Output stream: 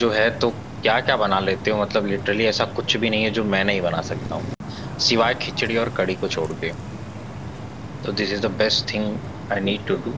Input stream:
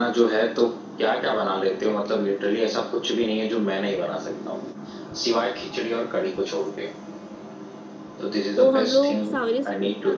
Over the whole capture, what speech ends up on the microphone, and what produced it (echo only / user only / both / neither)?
both